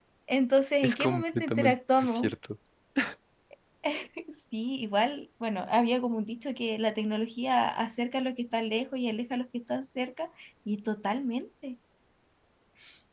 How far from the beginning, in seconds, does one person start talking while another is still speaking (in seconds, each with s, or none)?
0.8 s